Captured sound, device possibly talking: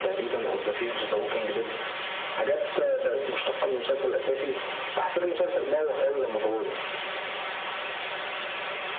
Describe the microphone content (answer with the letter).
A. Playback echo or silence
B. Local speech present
A